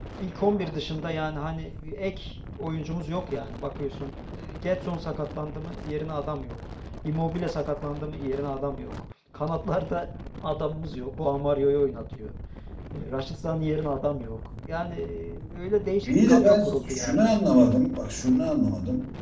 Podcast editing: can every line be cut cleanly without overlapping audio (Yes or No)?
No